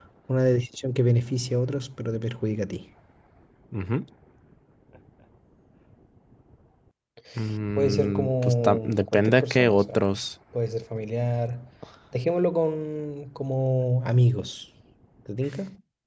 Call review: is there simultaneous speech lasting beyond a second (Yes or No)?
Yes